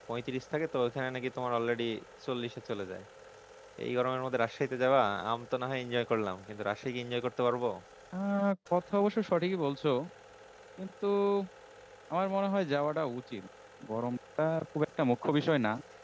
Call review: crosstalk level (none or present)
none